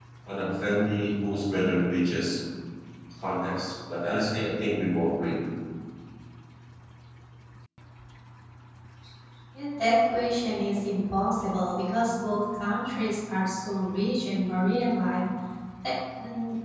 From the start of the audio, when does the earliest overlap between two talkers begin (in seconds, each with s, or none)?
none